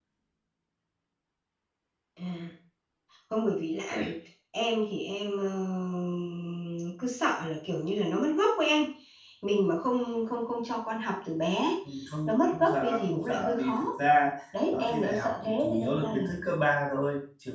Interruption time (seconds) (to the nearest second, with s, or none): 12 s